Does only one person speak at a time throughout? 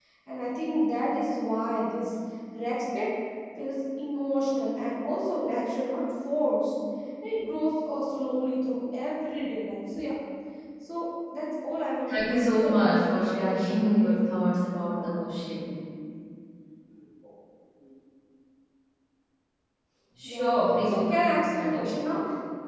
No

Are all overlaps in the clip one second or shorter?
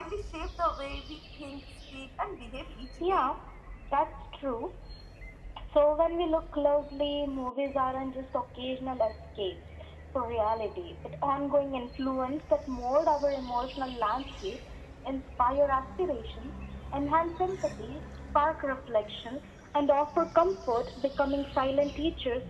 Yes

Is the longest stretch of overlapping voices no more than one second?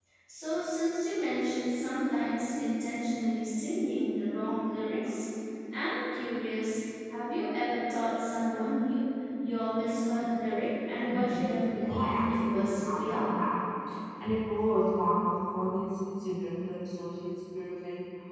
No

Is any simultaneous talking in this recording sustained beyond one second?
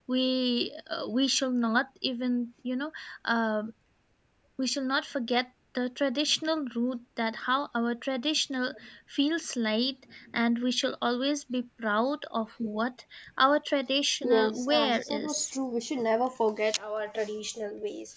Yes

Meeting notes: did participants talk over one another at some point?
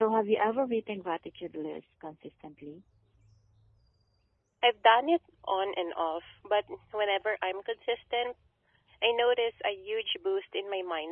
No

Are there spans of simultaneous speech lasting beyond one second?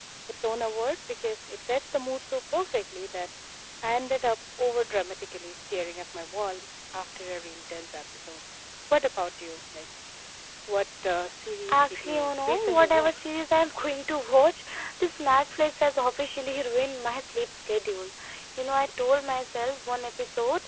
Yes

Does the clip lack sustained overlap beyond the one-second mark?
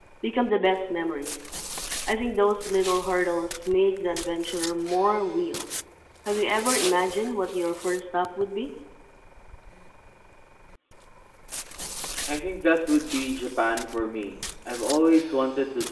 Yes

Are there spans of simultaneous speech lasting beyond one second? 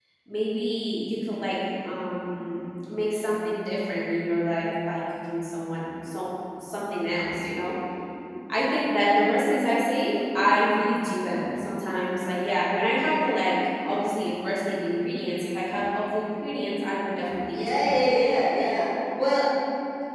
No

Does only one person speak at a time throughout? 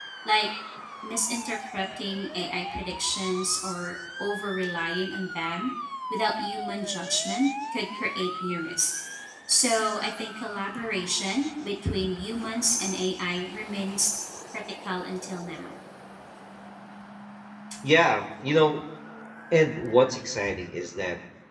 Yes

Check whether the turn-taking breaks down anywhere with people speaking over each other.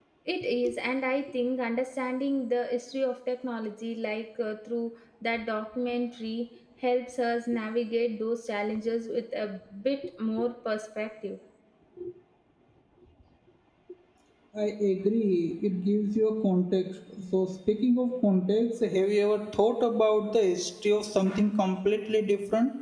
No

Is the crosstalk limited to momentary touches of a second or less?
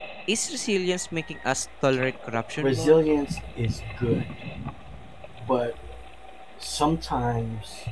Yes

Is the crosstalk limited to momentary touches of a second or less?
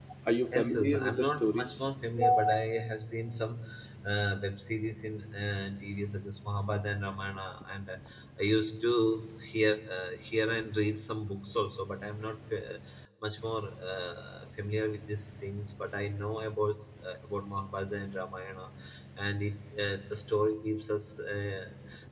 No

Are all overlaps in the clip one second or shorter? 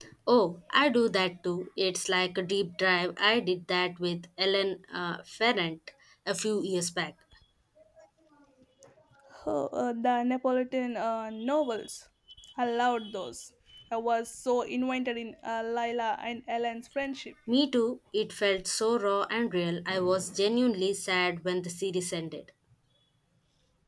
Yes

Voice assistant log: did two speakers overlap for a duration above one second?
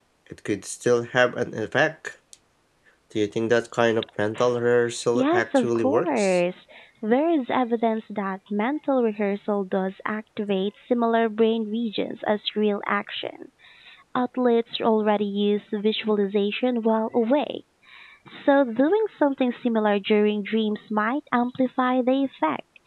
Yes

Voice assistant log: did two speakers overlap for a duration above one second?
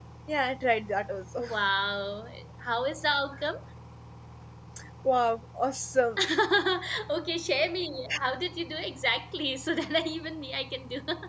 No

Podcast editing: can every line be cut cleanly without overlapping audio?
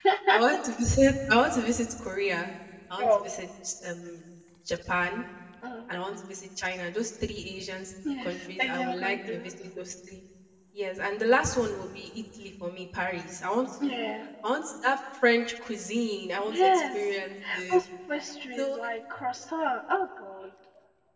No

